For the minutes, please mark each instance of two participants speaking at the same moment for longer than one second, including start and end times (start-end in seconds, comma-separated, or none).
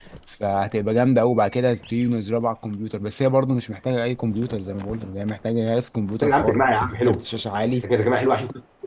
none